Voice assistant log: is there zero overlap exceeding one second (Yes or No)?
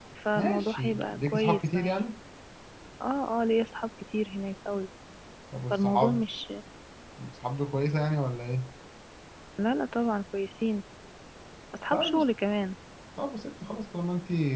No